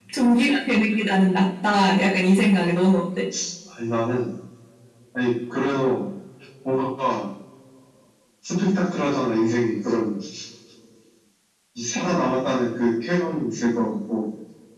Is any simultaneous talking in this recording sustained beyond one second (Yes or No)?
No